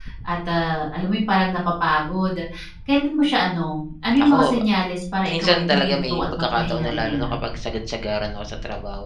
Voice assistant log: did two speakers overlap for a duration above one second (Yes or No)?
Yes